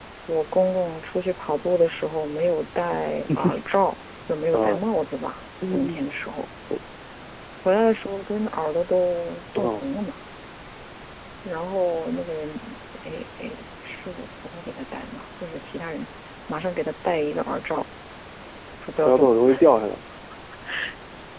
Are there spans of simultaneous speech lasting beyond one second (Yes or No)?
No